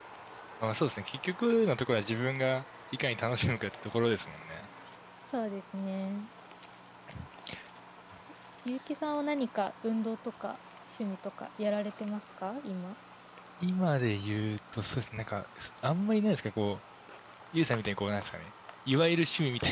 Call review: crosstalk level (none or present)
none